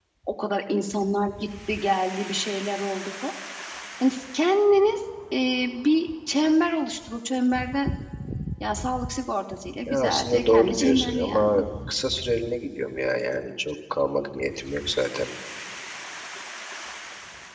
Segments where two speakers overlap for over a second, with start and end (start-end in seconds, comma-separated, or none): 9.9-11.6